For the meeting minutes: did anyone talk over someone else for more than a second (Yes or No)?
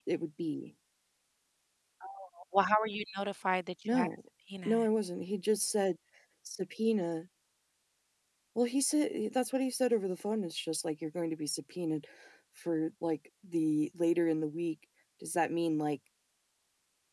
No